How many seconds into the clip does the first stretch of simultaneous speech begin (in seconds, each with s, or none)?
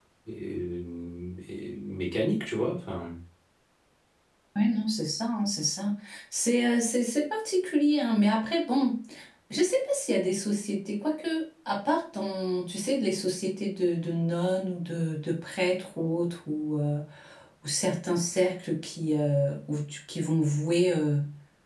none